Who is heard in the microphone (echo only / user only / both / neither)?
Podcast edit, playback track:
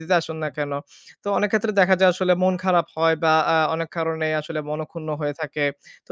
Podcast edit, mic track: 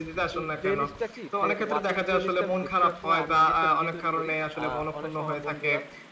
both